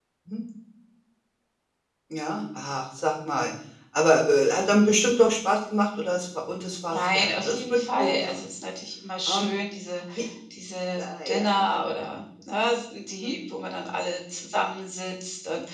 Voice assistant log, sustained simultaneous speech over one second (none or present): present